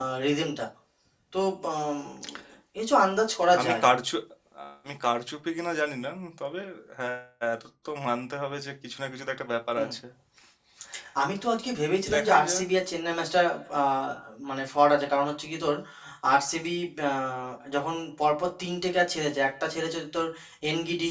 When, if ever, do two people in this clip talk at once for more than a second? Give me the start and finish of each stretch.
none

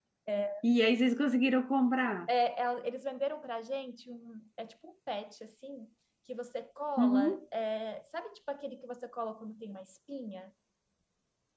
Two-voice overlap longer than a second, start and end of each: none

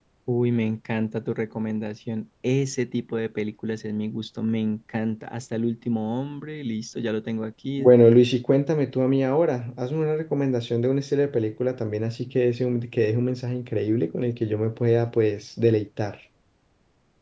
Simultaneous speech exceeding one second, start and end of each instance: none

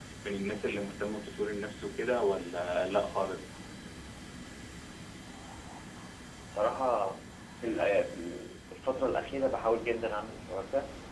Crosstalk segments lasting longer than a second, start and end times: none

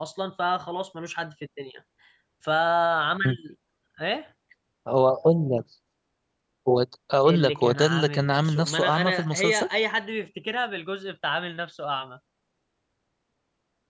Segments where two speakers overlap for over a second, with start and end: 7.3-9.7

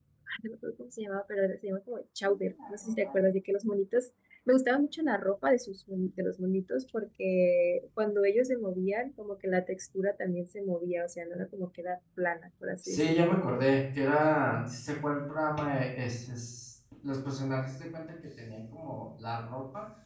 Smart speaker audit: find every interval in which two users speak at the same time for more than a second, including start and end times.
none

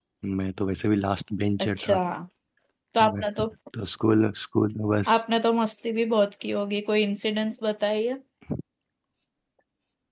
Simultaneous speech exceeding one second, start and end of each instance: none

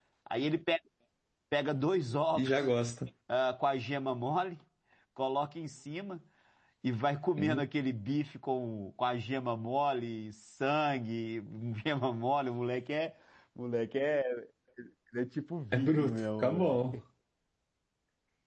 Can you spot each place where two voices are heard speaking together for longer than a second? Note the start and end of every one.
15.7-17.0

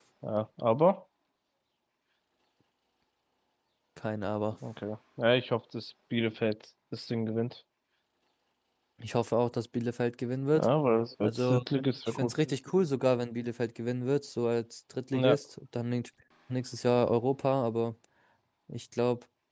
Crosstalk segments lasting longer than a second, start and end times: none

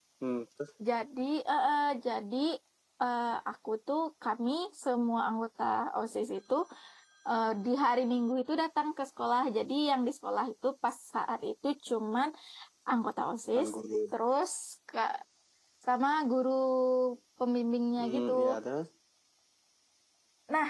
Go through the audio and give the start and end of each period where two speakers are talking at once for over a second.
none

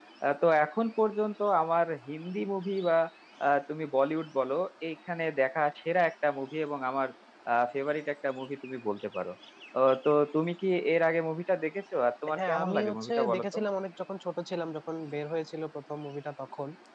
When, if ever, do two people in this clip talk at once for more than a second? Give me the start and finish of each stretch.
12.4-13.6

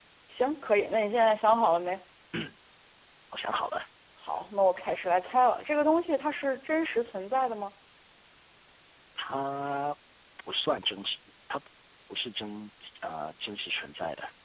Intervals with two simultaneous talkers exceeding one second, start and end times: none

